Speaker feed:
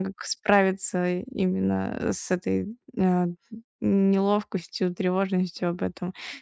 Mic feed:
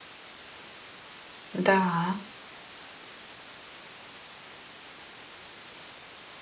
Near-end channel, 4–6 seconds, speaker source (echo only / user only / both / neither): neither